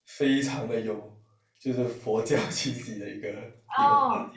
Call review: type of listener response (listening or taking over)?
taking over